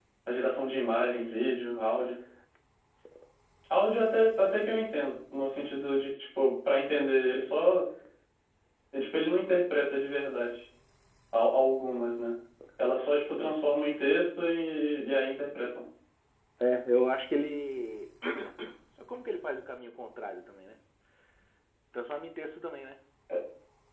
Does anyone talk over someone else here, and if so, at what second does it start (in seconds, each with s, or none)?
none